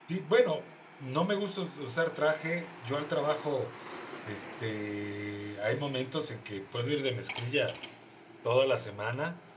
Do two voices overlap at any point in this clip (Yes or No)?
No